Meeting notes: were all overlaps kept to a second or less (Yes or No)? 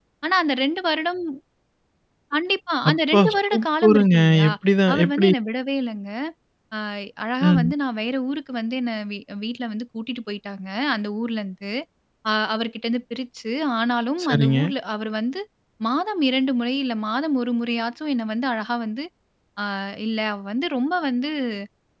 No